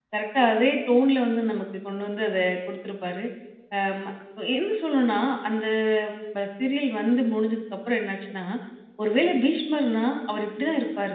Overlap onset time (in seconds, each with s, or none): none